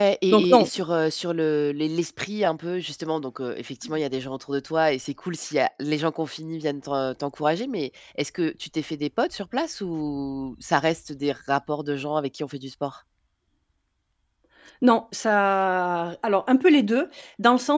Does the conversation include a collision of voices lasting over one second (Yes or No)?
No